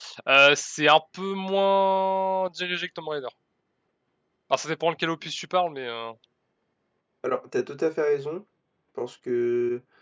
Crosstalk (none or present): none